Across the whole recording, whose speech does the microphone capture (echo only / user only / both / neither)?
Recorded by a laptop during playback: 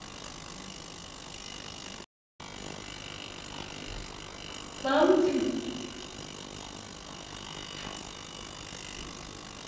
user only